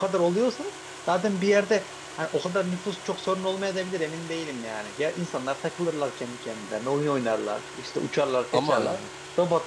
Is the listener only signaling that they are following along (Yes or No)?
Yes